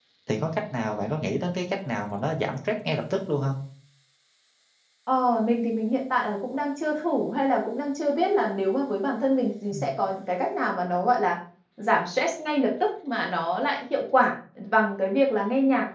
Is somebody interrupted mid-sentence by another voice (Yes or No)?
No